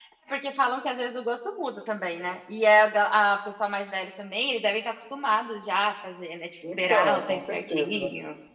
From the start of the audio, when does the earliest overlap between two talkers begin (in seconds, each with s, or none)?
6.6 s